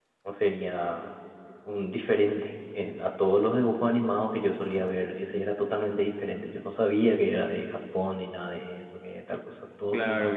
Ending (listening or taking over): taking over